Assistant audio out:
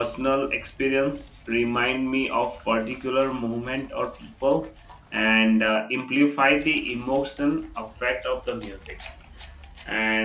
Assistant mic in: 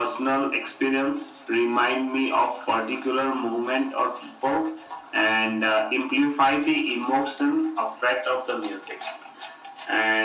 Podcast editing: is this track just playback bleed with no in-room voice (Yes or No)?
Yes